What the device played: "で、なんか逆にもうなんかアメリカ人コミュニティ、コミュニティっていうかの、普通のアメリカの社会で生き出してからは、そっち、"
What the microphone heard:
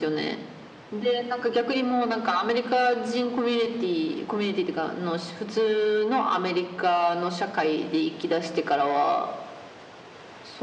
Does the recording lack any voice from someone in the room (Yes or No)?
Yes